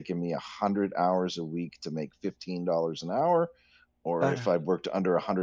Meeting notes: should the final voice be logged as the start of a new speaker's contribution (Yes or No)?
No